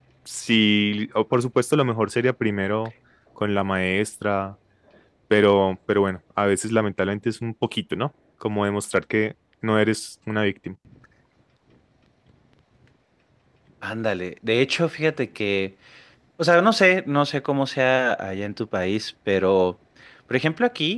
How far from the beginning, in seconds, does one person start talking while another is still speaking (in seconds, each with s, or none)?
none